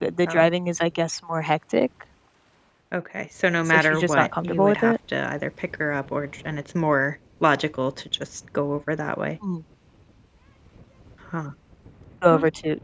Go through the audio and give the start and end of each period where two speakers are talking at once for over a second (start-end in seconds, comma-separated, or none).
3.7-4.9